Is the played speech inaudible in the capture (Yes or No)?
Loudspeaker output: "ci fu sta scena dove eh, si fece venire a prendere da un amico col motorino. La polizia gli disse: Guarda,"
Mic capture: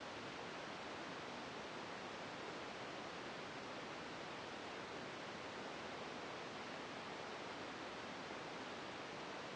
Yes